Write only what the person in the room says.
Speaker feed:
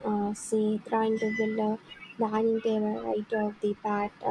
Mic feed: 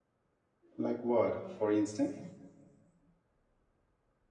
Like what, for instance?

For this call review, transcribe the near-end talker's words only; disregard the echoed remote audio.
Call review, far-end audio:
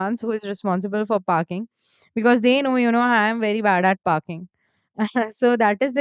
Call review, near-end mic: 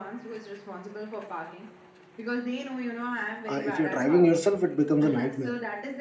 uh, if you're driving yourself it becomes a nightmare

